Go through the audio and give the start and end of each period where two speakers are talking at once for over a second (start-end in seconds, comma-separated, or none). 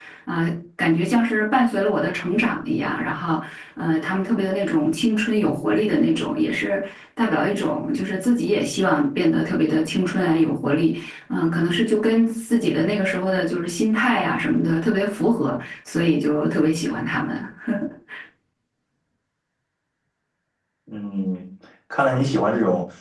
none